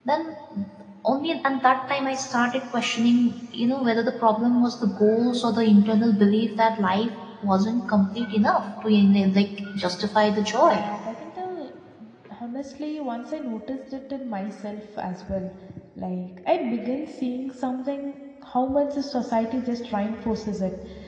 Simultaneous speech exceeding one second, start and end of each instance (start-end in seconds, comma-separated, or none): none